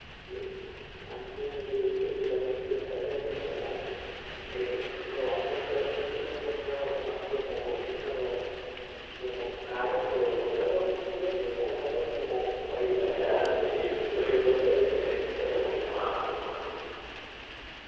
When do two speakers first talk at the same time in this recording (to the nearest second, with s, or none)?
13 s